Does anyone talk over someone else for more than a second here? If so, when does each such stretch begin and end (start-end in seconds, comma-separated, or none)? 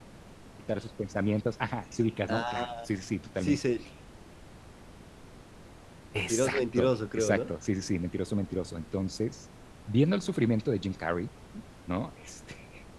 6.2-7.5